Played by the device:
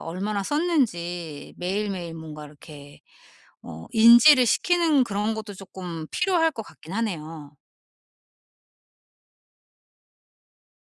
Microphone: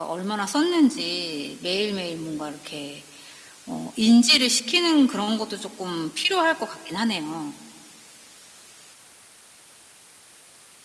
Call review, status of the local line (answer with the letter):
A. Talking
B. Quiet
B